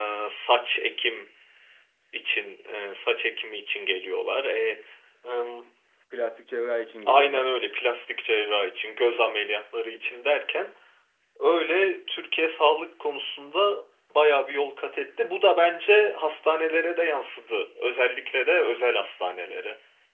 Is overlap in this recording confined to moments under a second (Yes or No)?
Yes